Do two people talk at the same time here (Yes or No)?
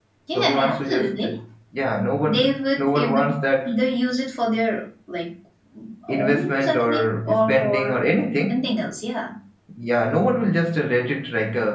Yes